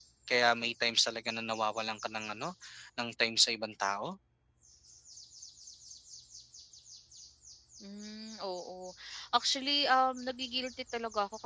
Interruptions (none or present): none